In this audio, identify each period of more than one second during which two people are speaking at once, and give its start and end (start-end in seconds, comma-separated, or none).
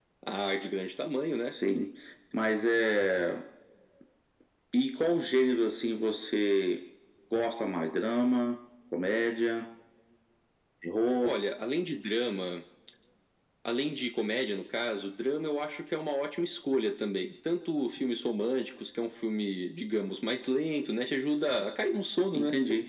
none